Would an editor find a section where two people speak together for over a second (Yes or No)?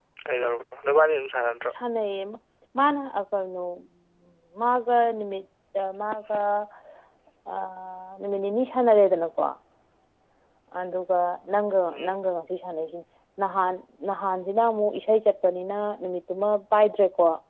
No